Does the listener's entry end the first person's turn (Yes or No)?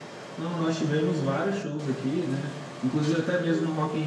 No